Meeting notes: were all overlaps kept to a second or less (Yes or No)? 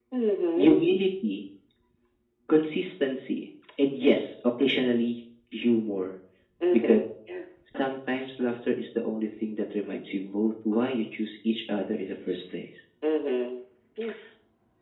Yes